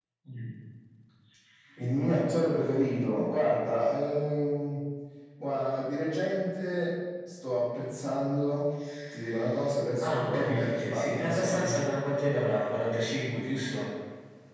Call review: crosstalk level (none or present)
present